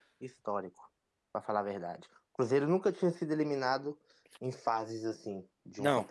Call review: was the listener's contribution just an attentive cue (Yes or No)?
No